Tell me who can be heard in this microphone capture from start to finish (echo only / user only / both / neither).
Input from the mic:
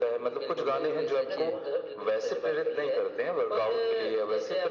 both